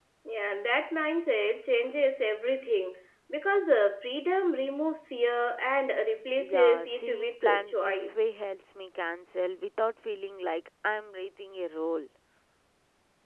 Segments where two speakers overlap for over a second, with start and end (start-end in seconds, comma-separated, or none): 6.4-8.3